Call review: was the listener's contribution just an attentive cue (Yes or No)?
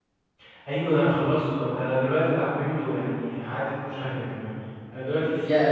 Yes